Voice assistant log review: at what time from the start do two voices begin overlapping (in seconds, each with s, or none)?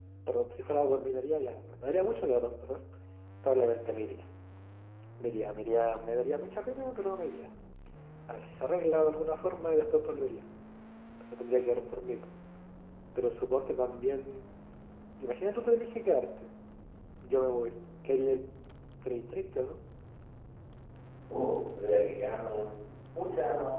none